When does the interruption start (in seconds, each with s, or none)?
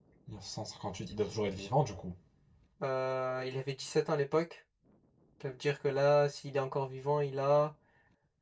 none